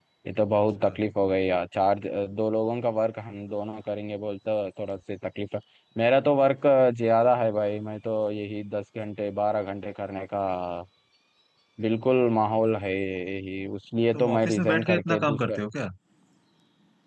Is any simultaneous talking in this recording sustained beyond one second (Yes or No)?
Yes